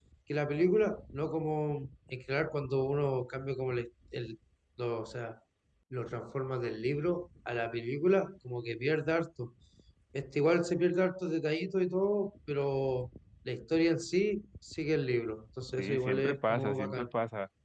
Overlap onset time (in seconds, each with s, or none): 15.8 s